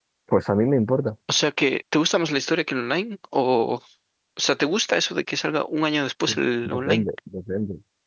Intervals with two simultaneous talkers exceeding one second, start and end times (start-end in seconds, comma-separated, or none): none